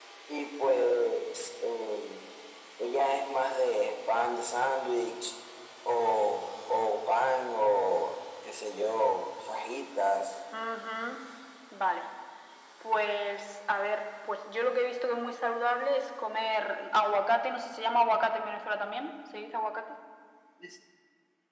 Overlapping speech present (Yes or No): No